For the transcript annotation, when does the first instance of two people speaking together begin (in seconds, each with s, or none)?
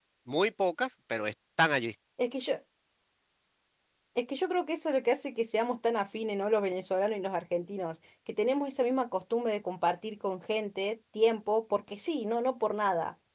none